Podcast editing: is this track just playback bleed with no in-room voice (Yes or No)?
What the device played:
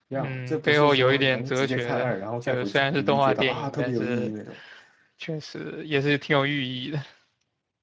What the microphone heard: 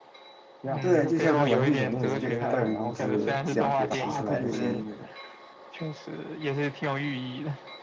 No